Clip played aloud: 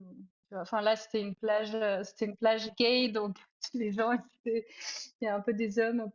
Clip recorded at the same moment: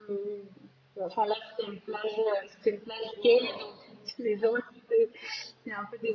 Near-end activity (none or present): present